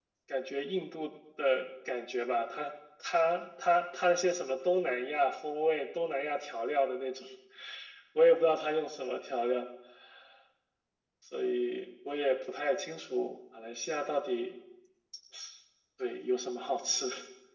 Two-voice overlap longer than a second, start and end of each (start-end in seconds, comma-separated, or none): none